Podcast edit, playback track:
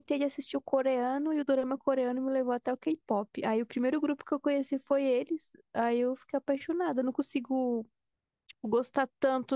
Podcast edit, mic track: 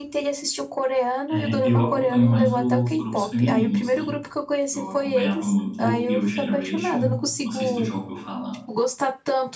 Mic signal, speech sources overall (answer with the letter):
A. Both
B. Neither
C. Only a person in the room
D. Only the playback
A